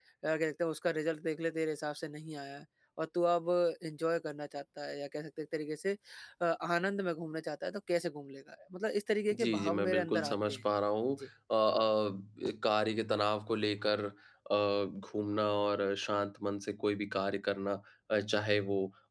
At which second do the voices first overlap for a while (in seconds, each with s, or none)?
9.3 s